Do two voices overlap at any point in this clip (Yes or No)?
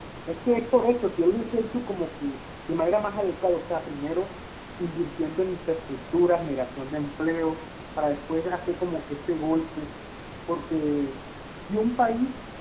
No